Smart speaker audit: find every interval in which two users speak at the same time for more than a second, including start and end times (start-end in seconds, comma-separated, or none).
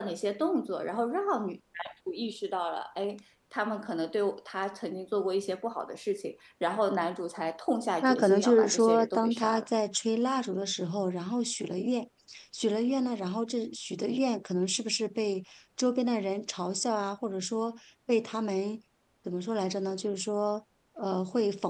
8.0-9.7